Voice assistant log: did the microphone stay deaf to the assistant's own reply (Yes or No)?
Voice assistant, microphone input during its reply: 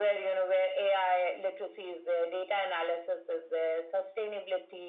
No